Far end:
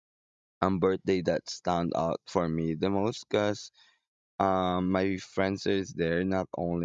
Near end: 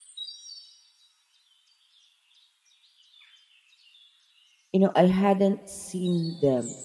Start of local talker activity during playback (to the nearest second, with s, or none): 5 s